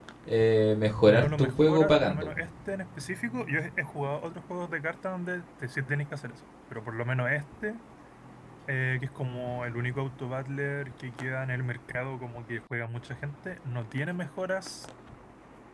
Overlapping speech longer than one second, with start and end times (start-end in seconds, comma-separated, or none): 1.1-2.4